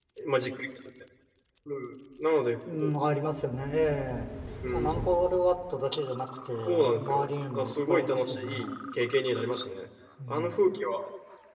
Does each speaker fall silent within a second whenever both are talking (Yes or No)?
No